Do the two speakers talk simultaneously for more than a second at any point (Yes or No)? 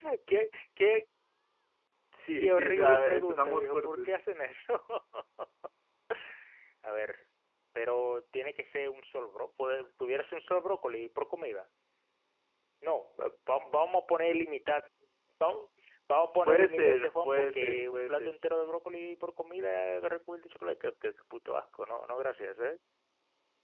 Yes